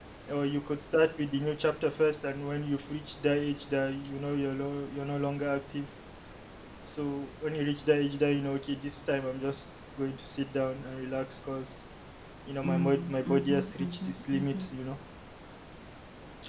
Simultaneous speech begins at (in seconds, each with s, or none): 12.6 s